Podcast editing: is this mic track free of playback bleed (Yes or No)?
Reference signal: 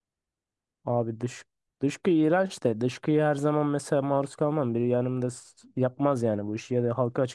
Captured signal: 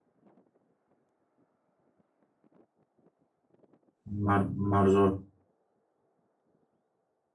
Yes